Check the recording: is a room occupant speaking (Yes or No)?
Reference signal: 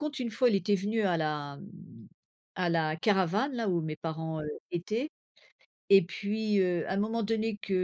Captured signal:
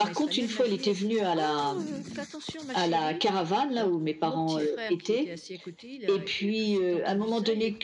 Yes